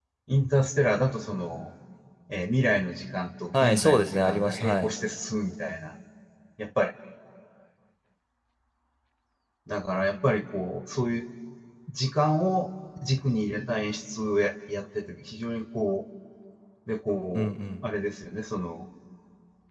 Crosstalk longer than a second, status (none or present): present